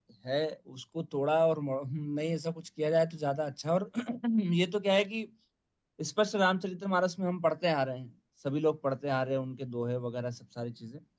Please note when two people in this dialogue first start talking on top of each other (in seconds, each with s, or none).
none